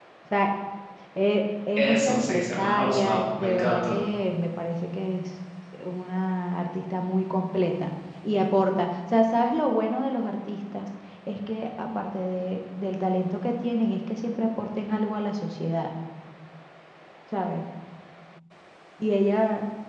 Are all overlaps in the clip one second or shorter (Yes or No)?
No